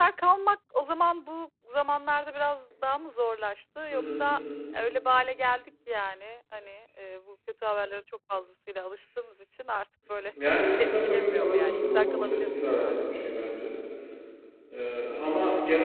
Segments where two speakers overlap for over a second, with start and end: 10.6-13.0

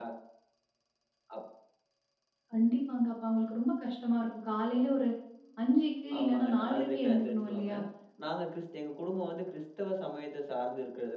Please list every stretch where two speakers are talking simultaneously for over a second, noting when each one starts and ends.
6.2-7.7

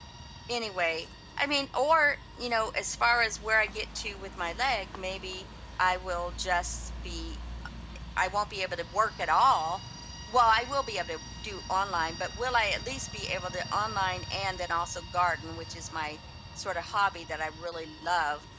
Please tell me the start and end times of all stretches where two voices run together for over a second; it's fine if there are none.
none

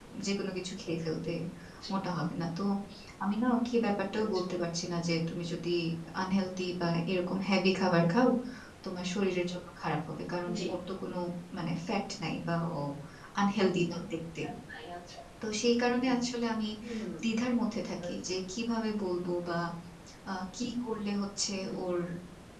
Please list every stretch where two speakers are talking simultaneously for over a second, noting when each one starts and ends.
none

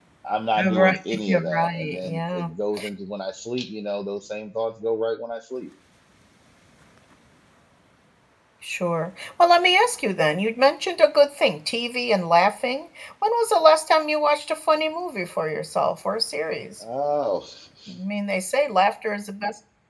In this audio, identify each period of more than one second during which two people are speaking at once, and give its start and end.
0.6-2.5

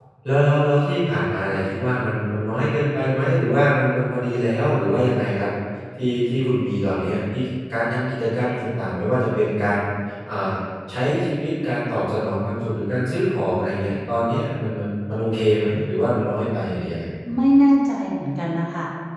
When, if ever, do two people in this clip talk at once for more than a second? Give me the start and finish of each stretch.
none

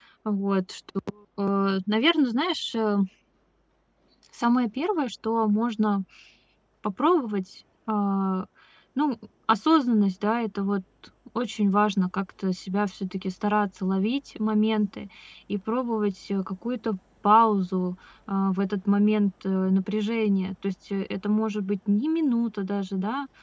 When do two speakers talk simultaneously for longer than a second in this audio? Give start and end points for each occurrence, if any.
none

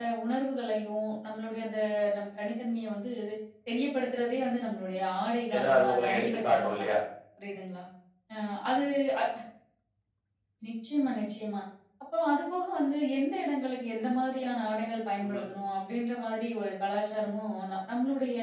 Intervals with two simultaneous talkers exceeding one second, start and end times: 5.5-6.9

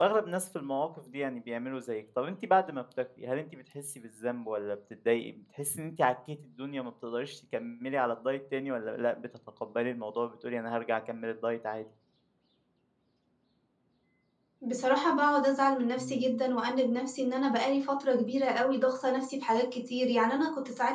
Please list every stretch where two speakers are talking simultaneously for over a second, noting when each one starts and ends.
none

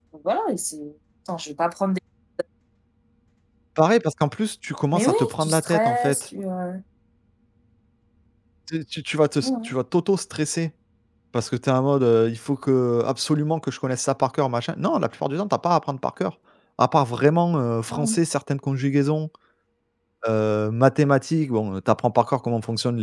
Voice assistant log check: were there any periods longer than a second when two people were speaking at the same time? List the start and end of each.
4.9-6.2

